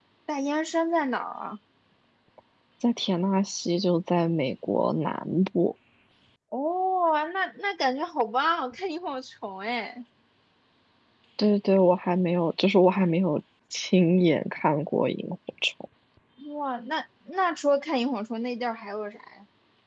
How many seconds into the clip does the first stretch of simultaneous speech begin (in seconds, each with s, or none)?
none